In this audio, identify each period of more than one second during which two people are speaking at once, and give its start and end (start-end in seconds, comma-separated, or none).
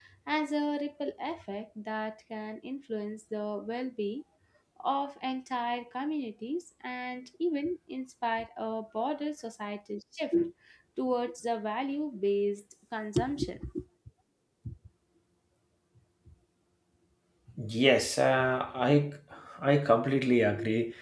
none